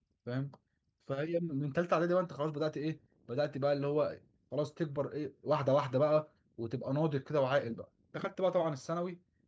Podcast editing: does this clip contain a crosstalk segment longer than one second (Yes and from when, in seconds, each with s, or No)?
No